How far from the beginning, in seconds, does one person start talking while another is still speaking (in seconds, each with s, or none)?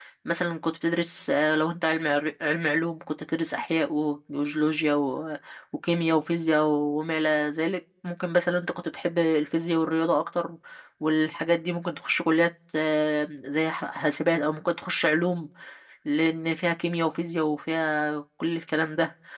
none